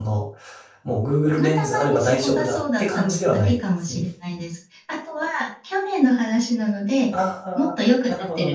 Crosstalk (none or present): present